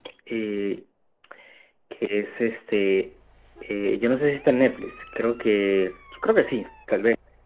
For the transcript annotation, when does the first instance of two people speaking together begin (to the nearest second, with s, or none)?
none